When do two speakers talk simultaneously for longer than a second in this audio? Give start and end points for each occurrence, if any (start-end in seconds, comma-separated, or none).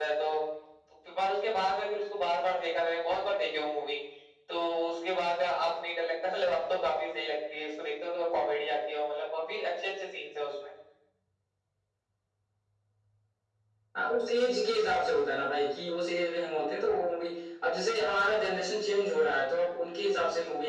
none